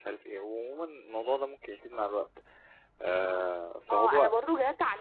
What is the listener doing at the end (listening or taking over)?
taking over